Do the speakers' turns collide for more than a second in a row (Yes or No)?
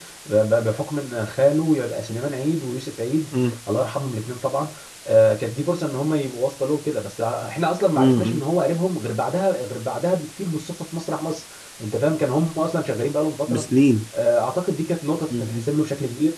No